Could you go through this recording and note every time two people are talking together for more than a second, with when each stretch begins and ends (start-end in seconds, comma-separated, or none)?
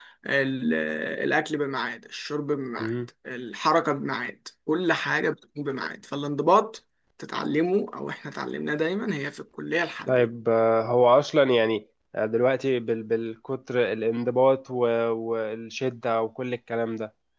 none